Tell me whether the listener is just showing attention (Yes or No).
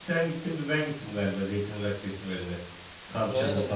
No